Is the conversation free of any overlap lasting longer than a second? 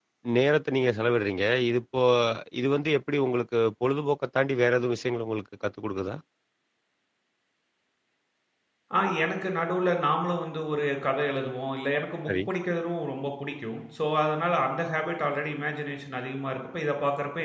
Yes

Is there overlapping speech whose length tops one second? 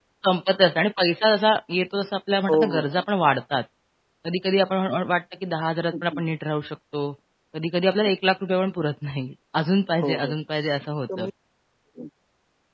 No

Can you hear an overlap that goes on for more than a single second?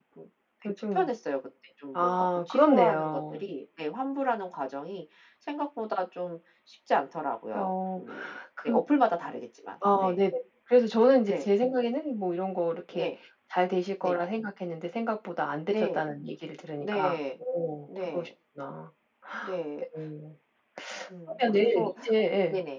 Yes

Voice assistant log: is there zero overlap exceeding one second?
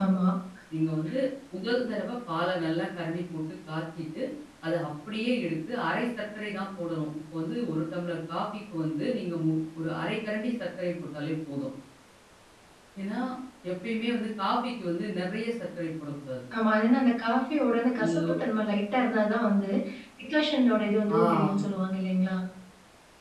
Yes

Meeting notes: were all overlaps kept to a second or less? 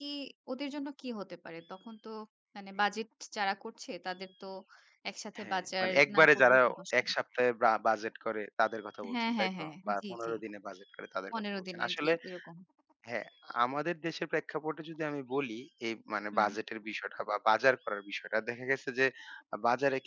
No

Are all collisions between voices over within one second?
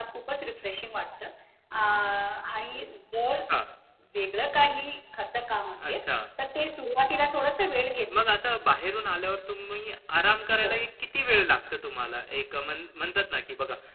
Yes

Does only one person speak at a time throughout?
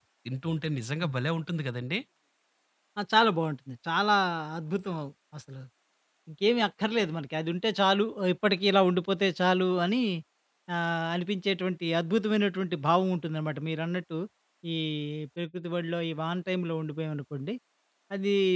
Yes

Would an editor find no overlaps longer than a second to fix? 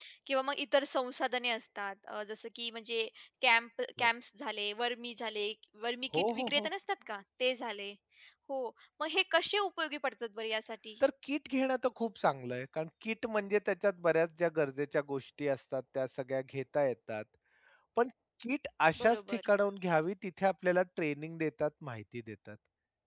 Yes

